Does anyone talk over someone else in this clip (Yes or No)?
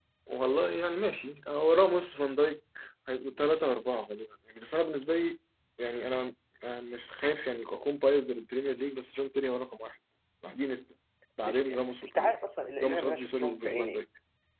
Yes